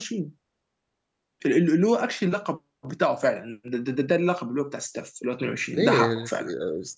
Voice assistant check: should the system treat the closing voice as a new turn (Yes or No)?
Yes